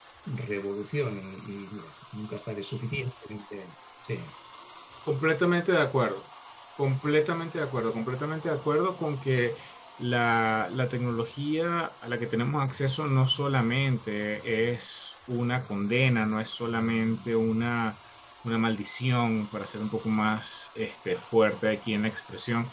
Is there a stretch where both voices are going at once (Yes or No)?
No